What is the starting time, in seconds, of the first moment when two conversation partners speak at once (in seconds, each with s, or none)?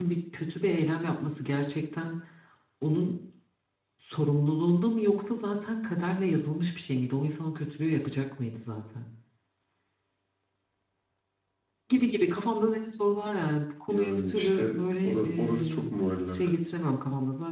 13.9 s